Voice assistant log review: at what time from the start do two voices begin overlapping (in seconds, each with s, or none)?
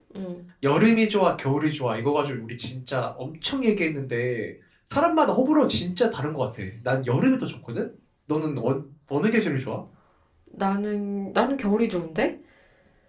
none